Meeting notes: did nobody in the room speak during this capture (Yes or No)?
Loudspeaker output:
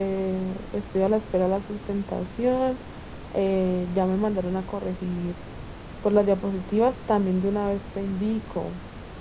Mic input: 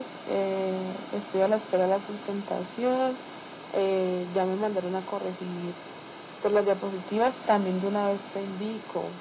Yes